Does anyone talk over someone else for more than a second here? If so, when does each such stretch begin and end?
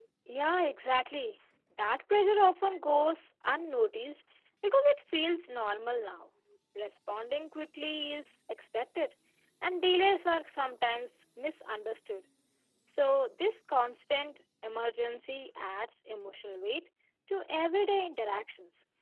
none

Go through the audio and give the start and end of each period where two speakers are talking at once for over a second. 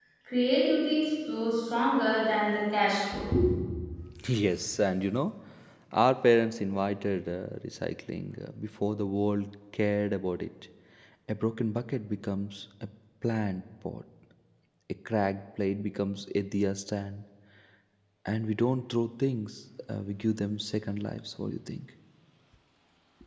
none

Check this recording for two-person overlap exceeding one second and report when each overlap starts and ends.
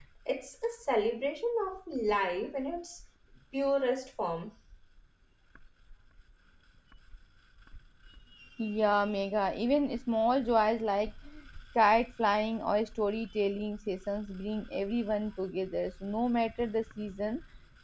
none

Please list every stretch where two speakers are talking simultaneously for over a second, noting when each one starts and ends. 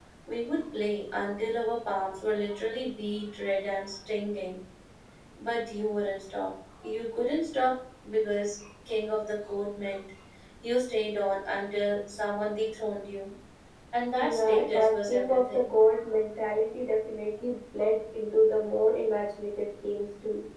14.2-15.7

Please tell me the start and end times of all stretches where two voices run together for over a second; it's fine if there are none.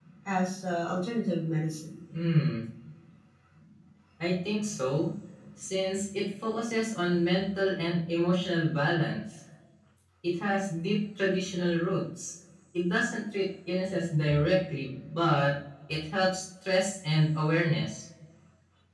none

